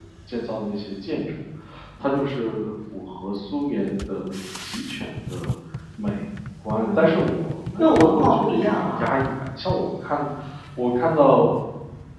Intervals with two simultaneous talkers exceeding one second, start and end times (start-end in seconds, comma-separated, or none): 7.8-9.1